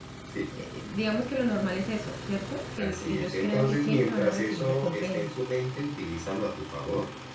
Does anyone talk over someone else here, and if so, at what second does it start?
2.8 s

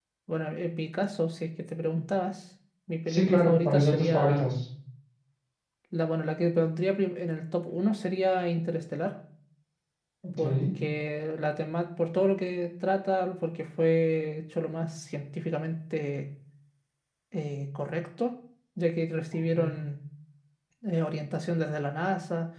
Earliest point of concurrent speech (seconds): 3.1 s

